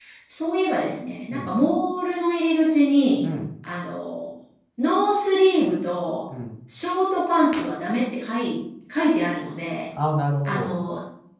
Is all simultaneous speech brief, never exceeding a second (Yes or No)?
Yes